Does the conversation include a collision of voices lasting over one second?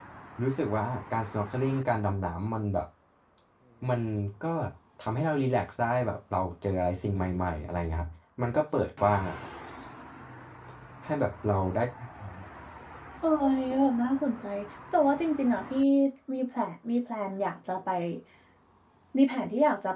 No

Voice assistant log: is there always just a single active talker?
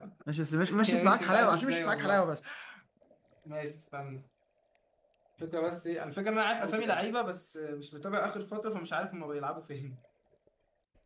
No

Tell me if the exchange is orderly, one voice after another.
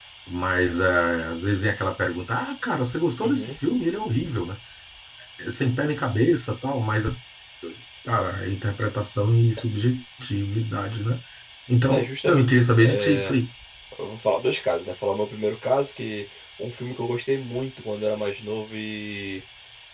No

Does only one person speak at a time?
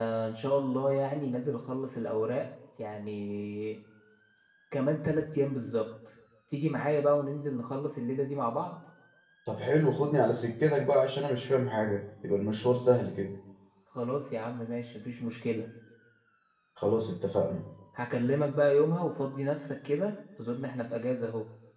Yes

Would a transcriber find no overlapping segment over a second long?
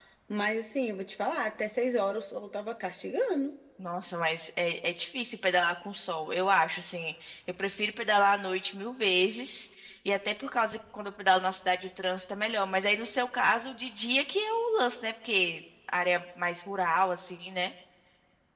Yes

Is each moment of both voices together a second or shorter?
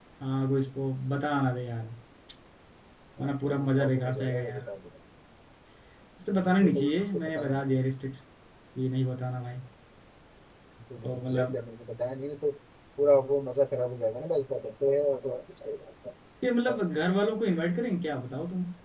No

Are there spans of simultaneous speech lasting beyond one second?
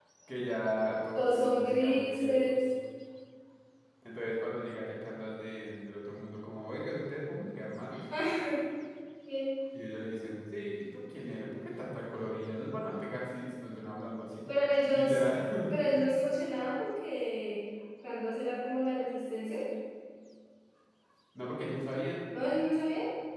Yes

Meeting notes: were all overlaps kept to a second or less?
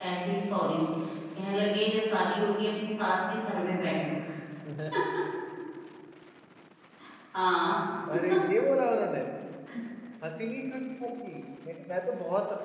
Yes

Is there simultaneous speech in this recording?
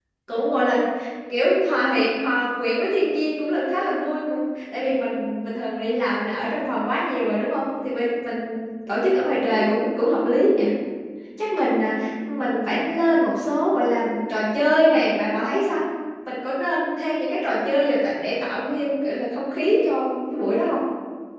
No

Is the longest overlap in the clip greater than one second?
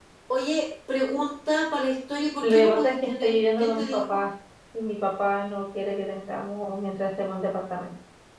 Yes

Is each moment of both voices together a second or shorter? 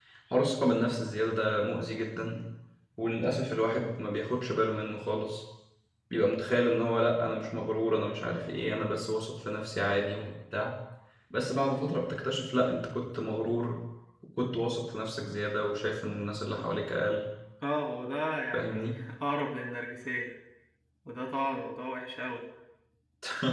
Yes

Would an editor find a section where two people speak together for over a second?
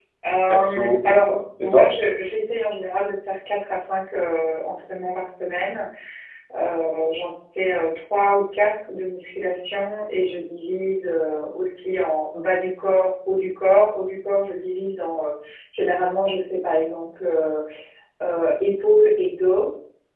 Yes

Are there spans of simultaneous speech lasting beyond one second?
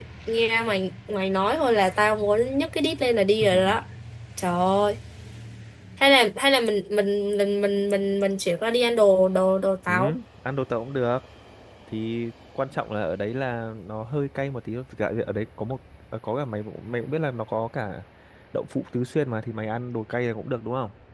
No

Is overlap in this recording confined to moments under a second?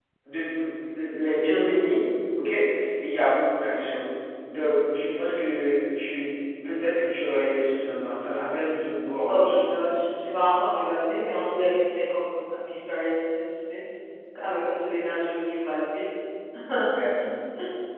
Yes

